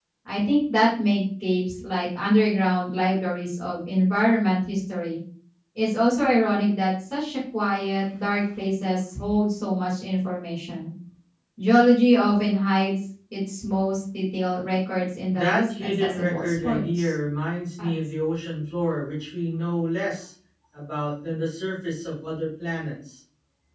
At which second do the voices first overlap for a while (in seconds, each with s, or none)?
15.3 s